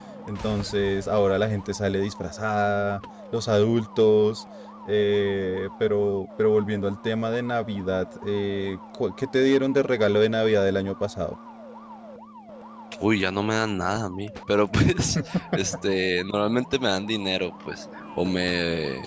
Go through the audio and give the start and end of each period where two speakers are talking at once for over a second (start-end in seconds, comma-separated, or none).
none